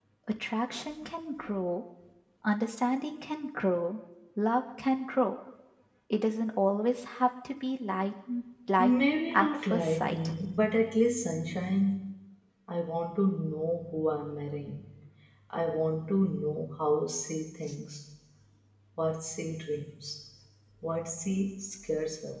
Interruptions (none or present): present